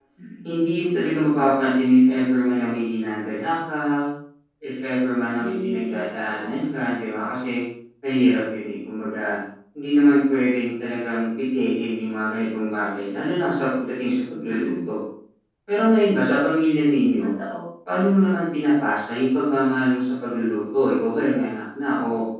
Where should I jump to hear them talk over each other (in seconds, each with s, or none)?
5.4 s